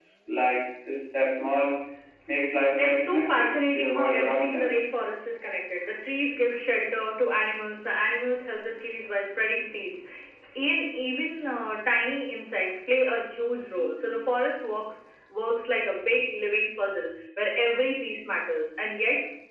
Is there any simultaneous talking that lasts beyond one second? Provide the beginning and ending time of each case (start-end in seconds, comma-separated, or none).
2.8-4.7